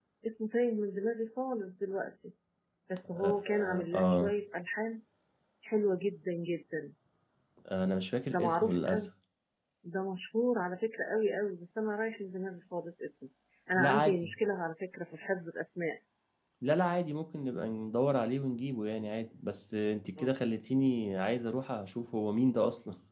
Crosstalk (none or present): present